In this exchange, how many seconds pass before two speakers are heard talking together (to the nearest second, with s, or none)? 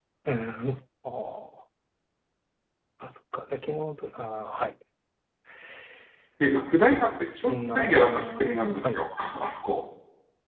7 s